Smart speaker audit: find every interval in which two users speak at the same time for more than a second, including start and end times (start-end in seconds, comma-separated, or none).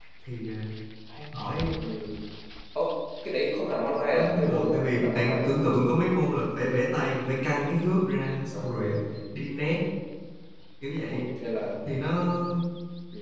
4.1-5.6